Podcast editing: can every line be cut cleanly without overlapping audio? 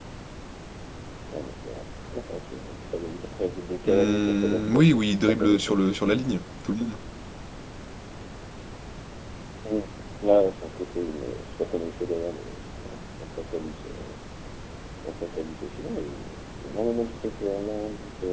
No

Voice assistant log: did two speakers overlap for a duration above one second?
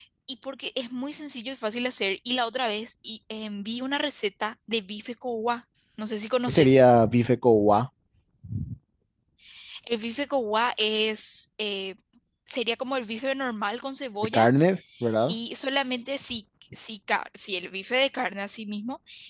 No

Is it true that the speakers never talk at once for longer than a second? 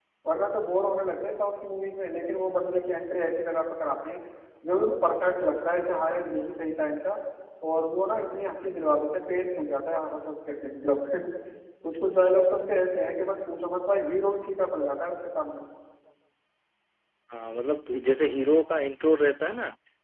Yes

